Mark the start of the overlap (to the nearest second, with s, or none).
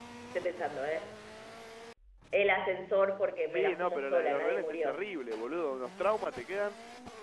3 s